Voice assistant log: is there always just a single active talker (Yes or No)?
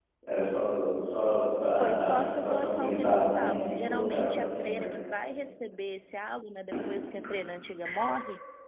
No